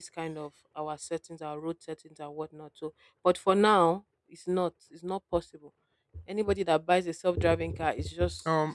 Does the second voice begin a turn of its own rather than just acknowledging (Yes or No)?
Yes